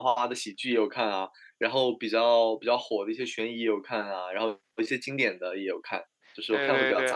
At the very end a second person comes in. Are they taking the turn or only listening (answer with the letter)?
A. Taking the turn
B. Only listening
A